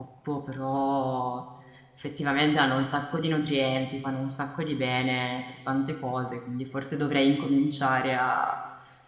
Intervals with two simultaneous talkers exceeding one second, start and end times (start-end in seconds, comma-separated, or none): none